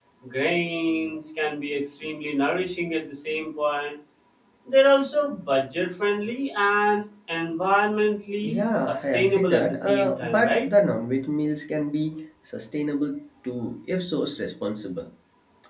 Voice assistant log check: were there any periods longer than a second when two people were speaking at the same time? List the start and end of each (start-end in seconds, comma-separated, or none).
8.4-10.6